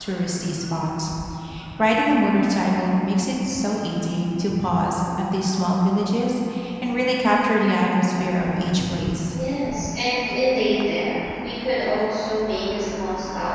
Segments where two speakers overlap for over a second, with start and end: none

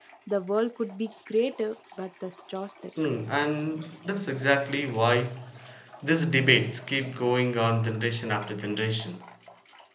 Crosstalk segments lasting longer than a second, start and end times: none

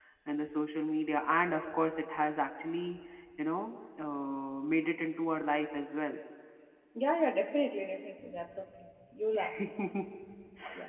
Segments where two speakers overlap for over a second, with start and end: none

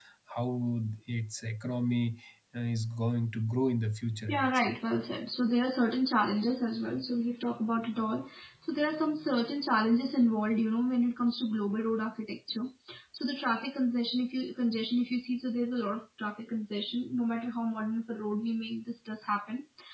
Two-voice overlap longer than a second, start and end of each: none

